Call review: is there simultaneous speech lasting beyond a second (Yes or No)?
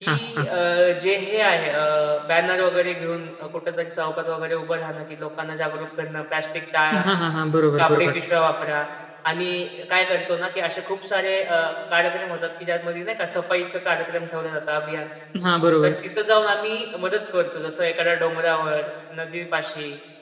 No